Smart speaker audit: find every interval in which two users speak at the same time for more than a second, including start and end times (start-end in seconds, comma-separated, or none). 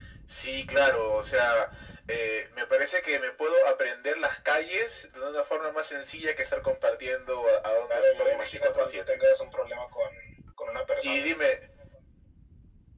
7.9-9.2